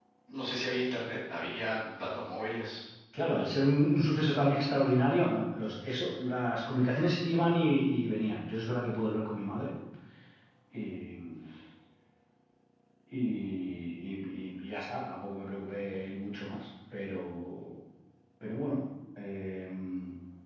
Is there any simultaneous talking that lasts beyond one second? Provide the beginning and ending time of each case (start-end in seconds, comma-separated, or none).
none